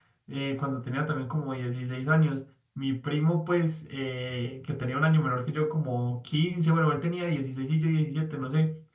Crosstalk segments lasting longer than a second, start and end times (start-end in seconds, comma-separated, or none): none